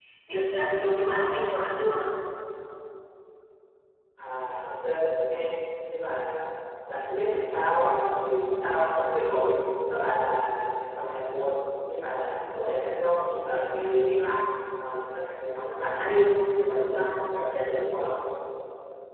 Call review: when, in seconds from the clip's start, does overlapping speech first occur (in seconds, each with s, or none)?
none